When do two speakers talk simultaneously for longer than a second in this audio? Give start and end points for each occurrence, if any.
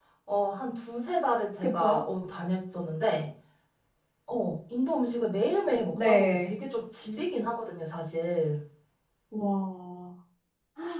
none

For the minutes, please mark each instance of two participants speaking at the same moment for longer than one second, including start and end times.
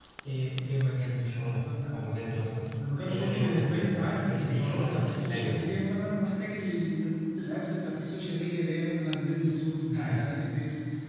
3.0-5.6

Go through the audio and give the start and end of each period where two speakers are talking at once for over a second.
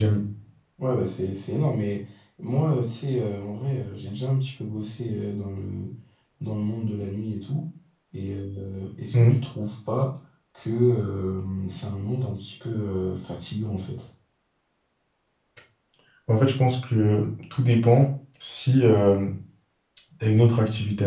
none

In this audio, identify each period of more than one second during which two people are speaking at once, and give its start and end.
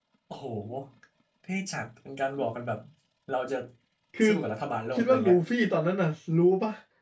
none

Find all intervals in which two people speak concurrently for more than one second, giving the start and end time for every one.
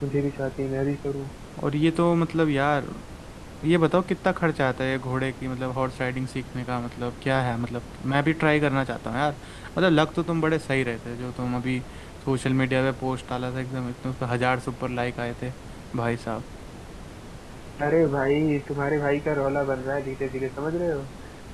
none

